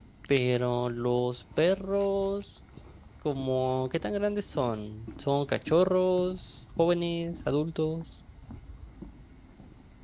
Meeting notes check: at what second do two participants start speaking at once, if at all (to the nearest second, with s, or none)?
none